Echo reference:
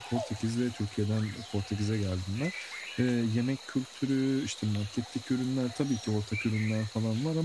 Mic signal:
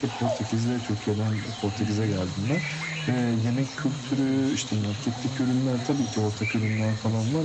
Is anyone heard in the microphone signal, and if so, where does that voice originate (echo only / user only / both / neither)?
both